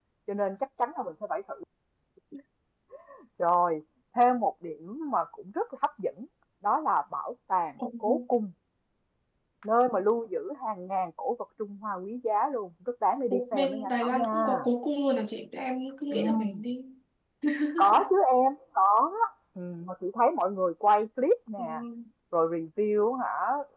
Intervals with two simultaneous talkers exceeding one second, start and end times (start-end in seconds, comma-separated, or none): 13.3-14.5